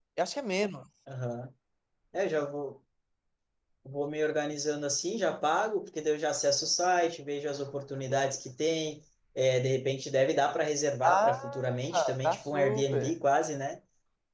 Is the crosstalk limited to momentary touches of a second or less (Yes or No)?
No